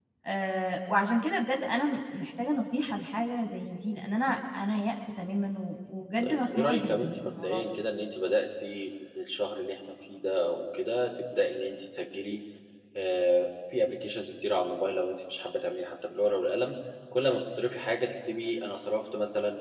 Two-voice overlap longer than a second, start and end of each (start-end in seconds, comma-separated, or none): 6.2-7.6